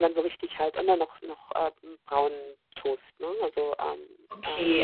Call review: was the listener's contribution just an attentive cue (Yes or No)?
No